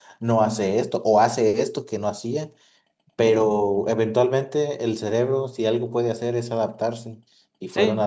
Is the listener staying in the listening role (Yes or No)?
Yes